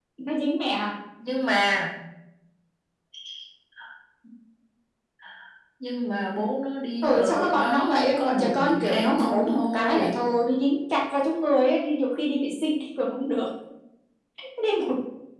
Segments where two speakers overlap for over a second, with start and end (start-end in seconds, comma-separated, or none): 7.0-10.2